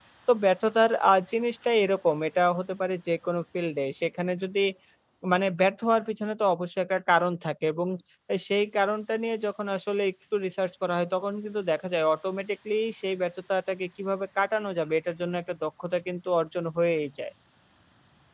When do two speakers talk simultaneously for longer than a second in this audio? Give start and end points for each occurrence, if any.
none

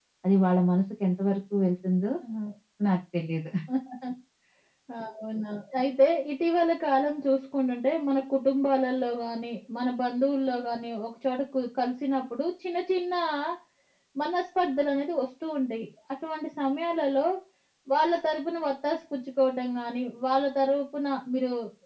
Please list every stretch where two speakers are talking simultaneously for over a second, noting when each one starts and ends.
none

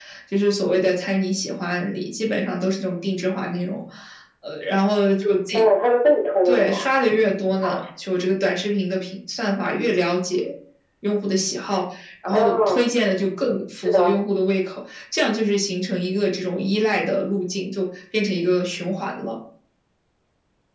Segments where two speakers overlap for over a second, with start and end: none

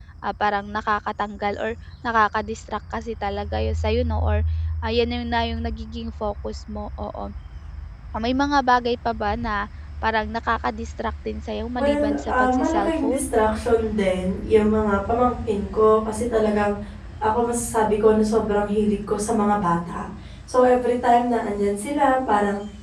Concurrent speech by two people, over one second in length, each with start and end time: 11.8-13.2

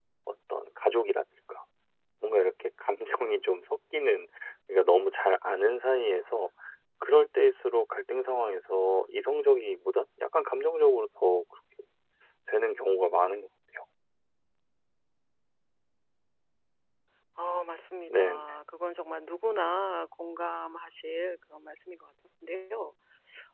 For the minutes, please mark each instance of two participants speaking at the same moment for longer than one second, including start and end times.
none

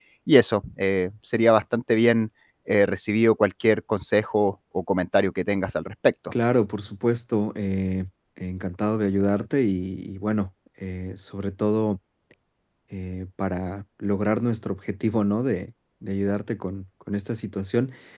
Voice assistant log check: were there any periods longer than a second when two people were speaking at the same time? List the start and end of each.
none

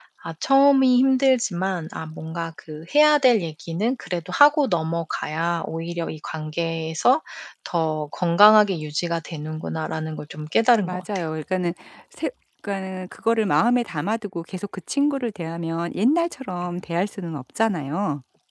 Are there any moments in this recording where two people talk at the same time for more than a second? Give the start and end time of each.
none

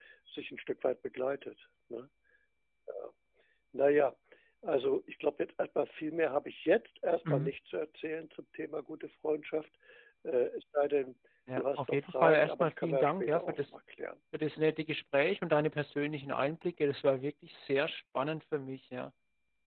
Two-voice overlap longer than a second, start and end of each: 11.6-13.7

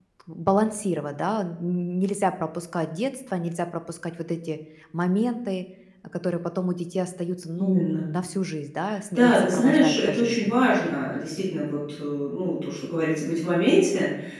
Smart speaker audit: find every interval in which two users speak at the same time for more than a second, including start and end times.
9.1-10.5

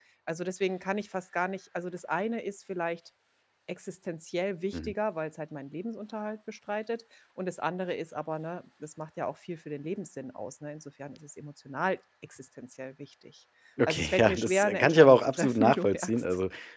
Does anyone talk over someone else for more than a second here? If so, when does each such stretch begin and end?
13.9-16.2

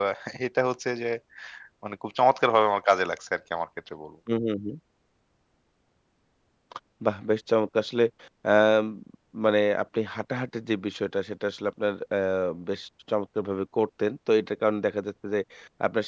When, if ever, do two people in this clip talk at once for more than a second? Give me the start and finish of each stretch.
none

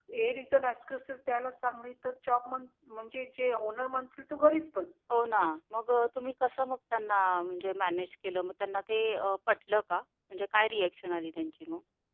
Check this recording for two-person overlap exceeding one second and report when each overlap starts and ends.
none

